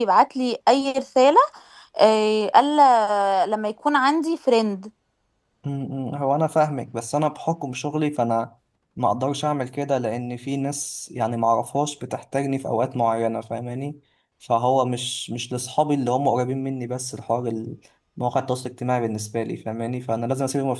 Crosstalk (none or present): none